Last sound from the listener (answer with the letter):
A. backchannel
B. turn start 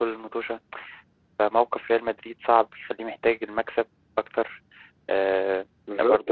B